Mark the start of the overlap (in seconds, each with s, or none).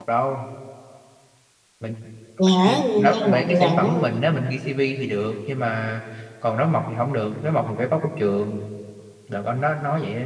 2.6 s